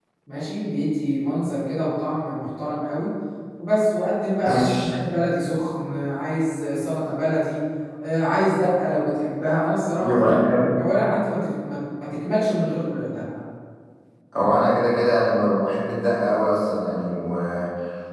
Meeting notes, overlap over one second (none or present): none